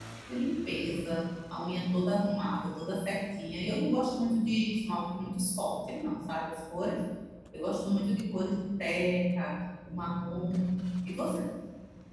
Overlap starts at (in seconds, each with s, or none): none